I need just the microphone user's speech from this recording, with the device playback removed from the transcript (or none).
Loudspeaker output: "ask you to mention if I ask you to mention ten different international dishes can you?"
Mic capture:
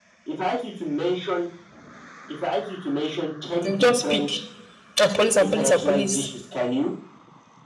You just pick. And police and police and police.